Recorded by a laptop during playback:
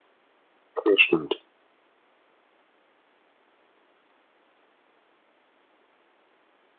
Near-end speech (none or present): present